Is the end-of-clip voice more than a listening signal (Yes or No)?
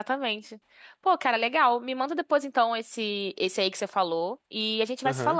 No